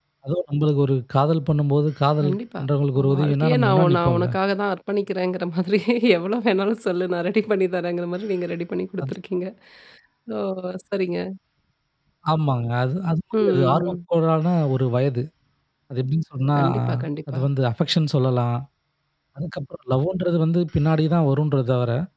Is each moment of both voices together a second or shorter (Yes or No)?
No